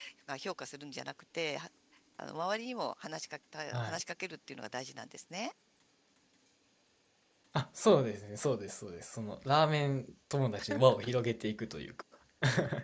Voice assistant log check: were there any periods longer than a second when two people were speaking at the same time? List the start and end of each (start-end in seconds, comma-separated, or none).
none